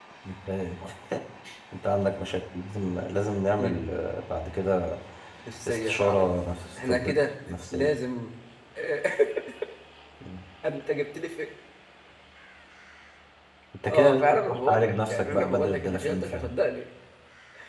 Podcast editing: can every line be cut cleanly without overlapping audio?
No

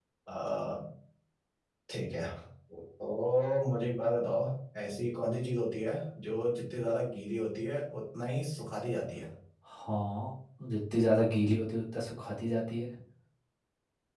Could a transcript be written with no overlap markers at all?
Yes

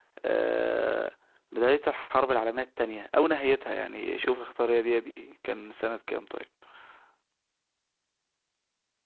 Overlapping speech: No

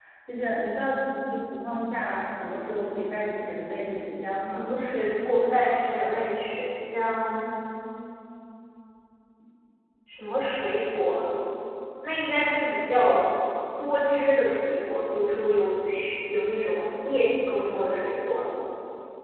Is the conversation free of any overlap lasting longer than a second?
Yes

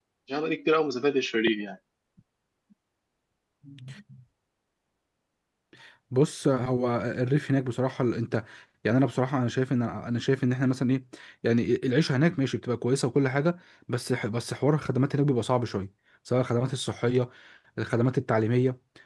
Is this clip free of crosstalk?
Yes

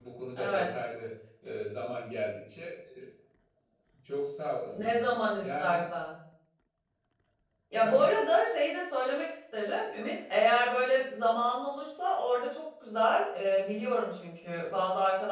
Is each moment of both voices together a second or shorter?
Yes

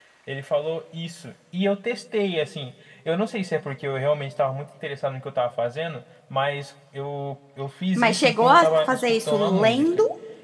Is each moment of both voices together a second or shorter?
No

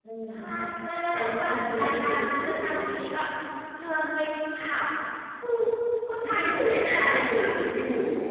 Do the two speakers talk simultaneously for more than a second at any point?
Yes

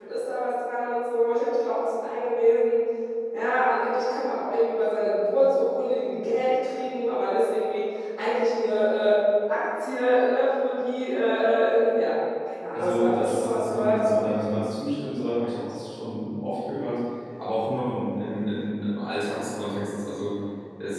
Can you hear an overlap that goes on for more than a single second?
Yes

